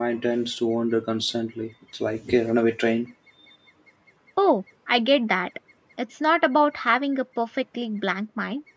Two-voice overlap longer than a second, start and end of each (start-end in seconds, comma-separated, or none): none